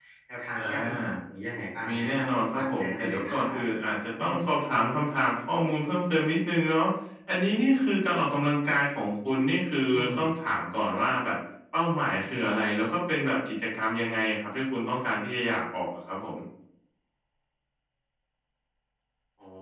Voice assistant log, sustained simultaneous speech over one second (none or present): present